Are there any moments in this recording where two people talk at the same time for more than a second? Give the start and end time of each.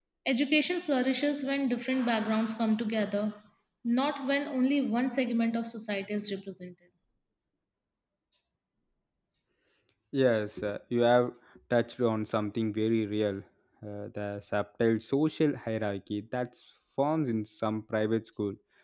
none

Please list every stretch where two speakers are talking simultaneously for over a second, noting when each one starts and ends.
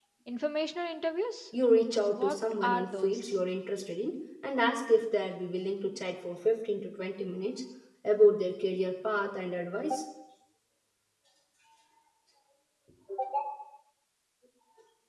2.1-3.4

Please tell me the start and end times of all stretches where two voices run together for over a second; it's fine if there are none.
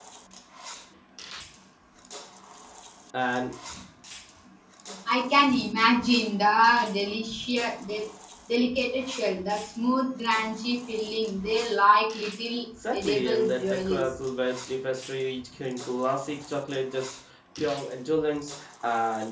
12.9-14.2

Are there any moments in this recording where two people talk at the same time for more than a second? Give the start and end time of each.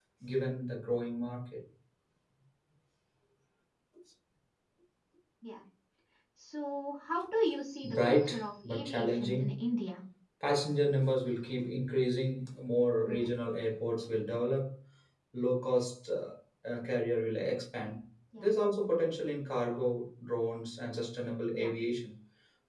7.8-9.6

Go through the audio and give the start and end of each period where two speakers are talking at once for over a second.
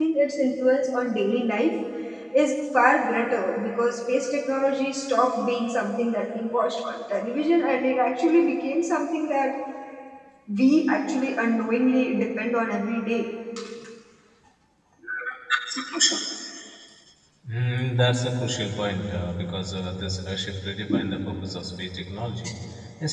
none

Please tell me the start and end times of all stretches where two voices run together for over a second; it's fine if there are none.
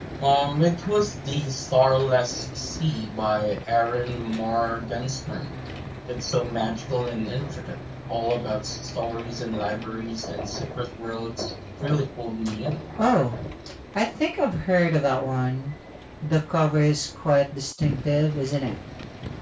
none

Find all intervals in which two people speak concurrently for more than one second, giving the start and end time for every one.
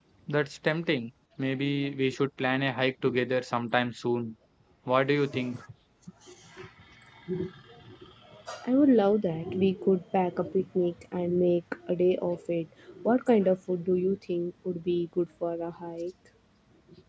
none

